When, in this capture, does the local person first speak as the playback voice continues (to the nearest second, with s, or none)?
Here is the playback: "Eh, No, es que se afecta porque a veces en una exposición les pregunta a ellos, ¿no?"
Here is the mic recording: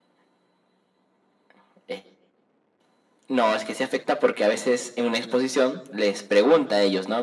none